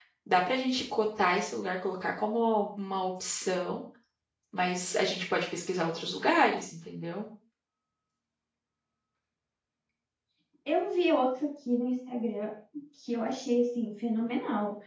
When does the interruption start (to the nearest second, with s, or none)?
none